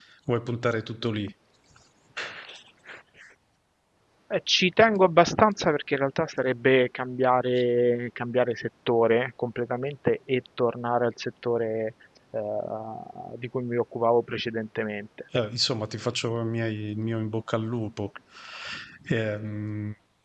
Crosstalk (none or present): none